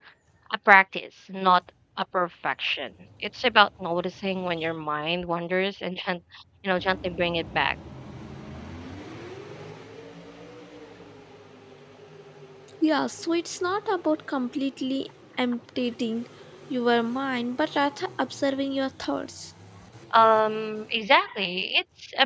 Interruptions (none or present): none